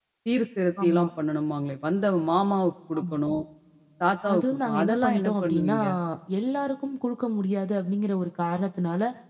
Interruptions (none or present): present